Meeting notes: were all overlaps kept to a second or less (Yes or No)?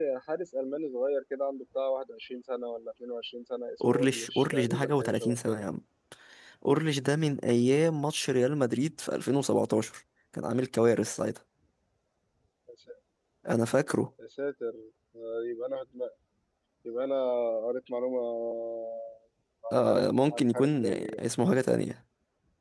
No